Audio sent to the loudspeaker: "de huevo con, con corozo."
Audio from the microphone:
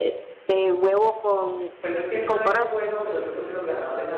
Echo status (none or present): present